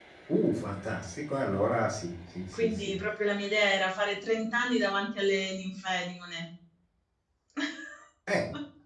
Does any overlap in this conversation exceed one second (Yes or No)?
No